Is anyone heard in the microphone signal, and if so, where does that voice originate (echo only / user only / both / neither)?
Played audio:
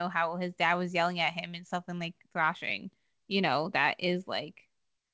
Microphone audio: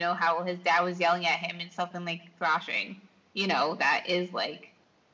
echo only